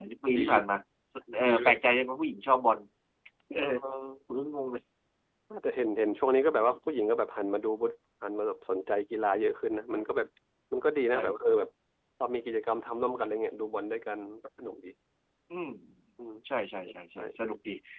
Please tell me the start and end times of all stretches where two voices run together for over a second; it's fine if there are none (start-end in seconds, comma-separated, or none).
none